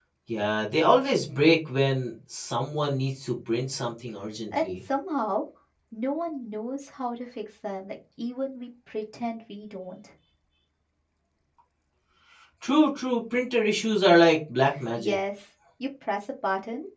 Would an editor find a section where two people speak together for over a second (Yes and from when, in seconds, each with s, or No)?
No